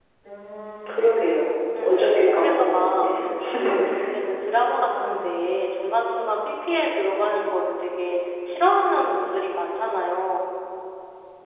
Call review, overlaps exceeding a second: present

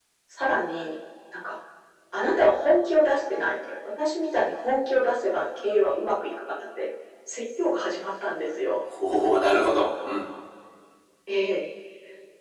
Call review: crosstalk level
none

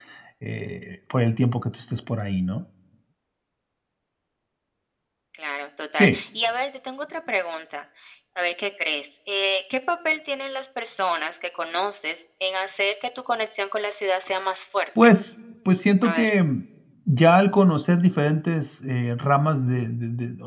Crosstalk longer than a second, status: none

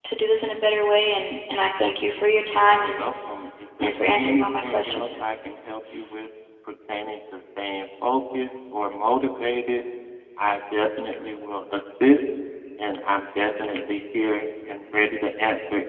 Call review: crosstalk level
present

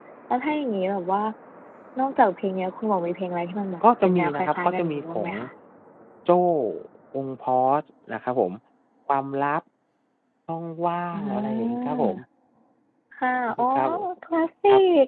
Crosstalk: present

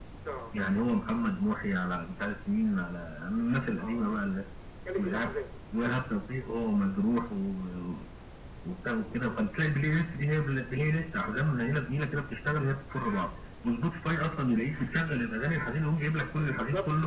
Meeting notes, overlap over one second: none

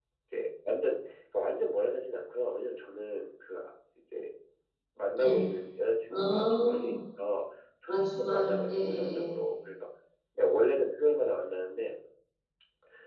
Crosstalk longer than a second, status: present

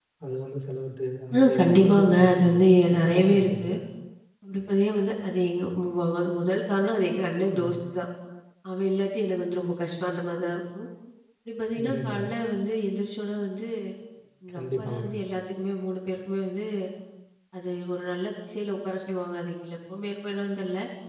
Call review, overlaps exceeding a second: present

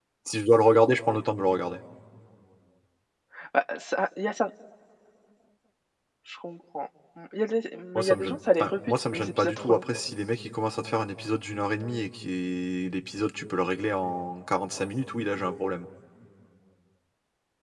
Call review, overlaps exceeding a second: present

